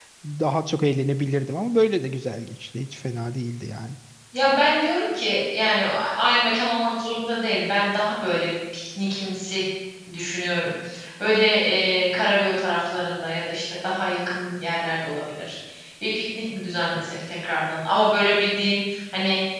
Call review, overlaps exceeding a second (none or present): none